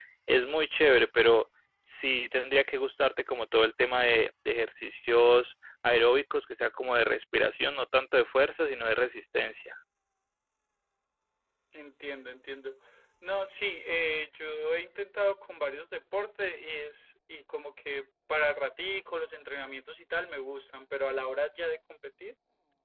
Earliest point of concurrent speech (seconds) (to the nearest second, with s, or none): none